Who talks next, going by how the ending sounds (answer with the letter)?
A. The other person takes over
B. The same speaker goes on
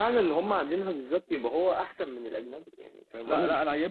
A